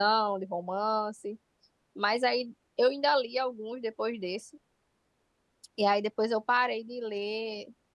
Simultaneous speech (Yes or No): No